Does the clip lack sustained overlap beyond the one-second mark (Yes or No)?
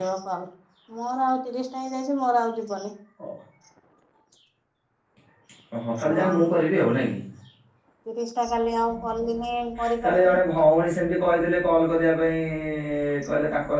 Yes